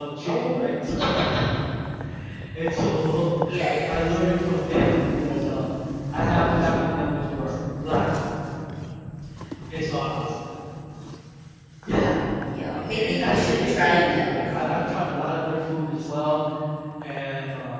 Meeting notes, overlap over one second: present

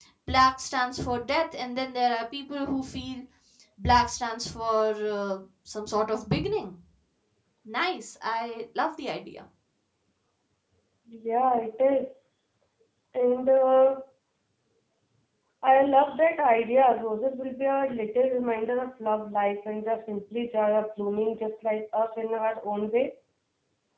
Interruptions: none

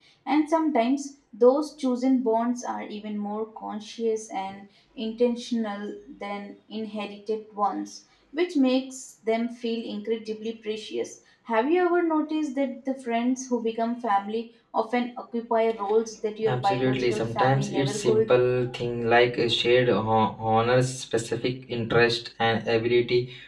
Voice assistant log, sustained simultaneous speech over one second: present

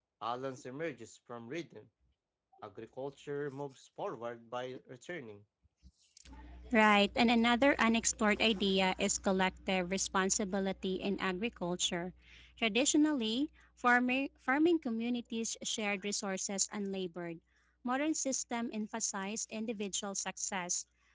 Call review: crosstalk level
none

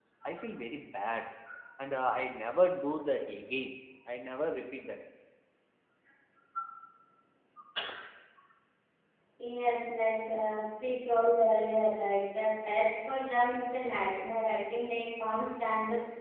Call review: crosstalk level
none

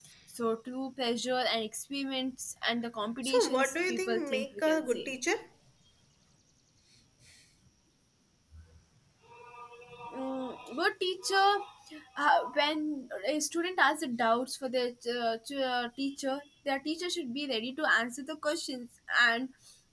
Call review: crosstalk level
present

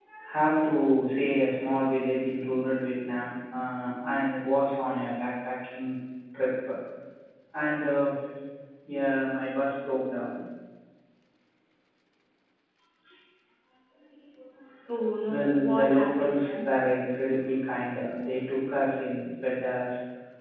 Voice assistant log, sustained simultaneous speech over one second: present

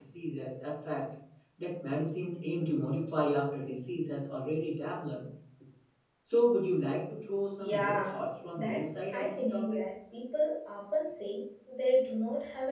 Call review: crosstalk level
present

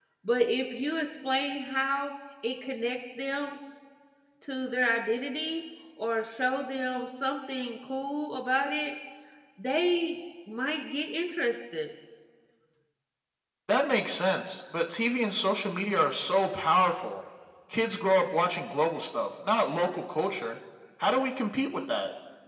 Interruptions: none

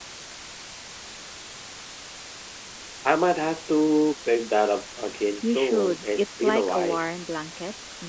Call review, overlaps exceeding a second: present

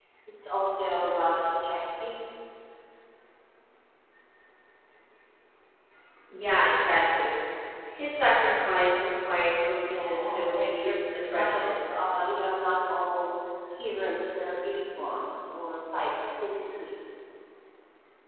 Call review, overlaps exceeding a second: present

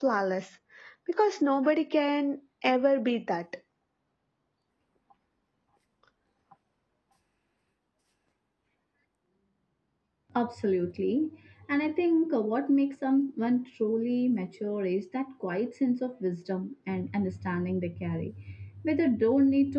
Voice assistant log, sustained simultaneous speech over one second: none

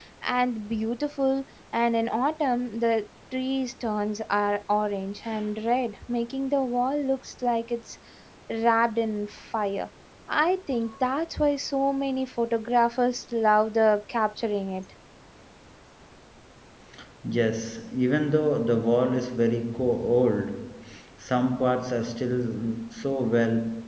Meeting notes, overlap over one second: none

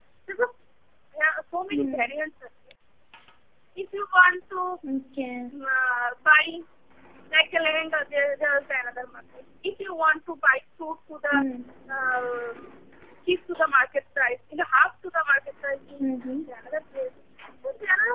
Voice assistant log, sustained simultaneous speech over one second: none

